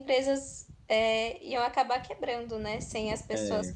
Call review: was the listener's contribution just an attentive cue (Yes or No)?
Yes